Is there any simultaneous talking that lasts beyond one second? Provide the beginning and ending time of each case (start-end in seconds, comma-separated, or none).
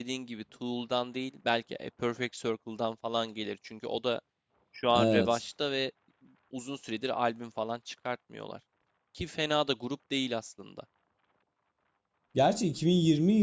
none